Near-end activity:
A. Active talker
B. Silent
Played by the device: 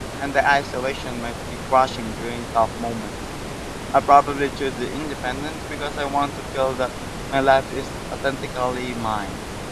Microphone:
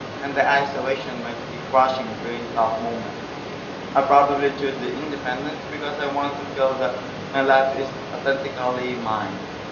B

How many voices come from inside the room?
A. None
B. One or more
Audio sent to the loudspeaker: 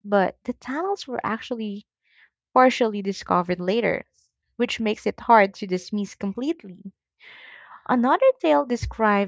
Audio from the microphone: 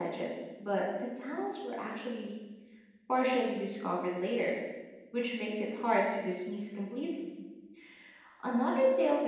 A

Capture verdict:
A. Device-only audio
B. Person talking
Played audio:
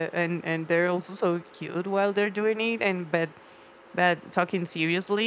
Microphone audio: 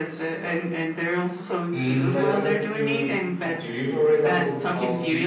B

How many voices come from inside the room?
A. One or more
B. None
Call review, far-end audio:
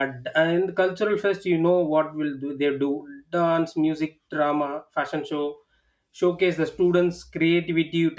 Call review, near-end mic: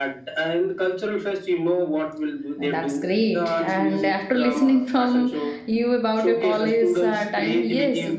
A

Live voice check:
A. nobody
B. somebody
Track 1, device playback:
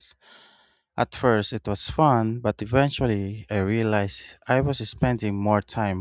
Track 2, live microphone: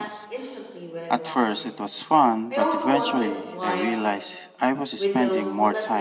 B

